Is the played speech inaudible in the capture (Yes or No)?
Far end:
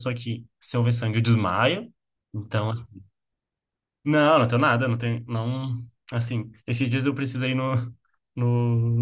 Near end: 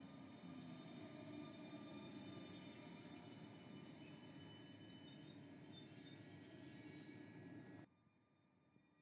Yes